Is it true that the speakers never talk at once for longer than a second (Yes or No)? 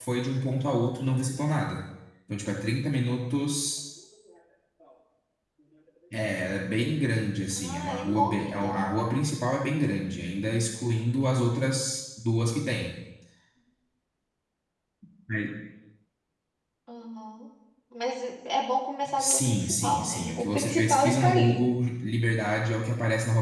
No